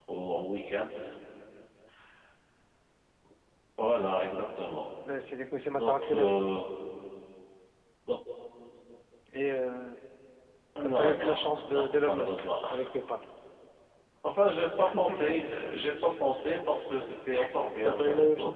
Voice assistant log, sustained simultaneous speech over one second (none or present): present